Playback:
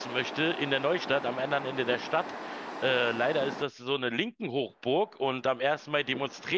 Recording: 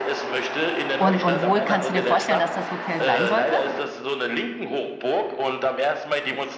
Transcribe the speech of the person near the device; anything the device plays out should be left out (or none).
Und, und wo kannst du dir vorstellen, dass das Hotel sein sollte?